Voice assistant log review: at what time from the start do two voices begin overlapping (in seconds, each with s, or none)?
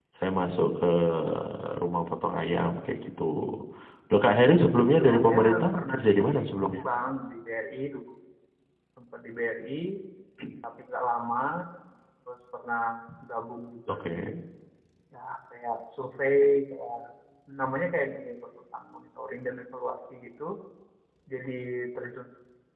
4.8 s